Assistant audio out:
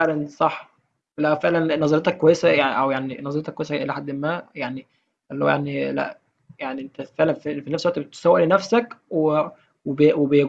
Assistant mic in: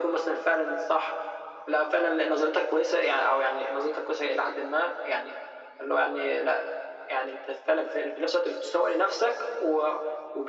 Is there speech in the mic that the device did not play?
No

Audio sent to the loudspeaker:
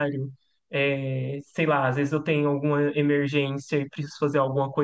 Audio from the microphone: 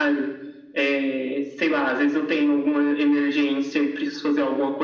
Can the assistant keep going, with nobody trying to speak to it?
Yes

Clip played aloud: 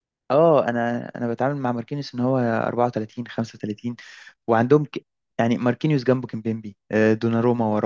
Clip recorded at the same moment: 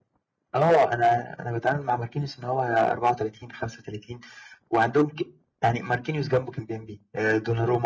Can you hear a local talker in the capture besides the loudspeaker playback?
No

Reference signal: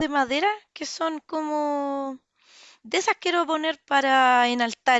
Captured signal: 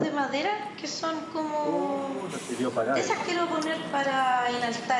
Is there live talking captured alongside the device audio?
Yes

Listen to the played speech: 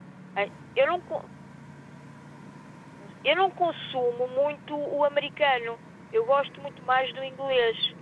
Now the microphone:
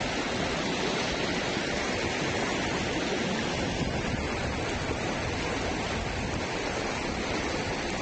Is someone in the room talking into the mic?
No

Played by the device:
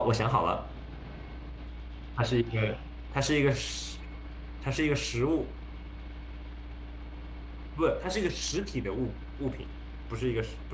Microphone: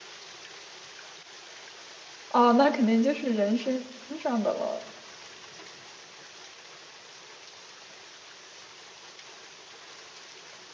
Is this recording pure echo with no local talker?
No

